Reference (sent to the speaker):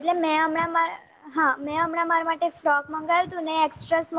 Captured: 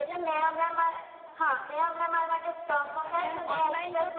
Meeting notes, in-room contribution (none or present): present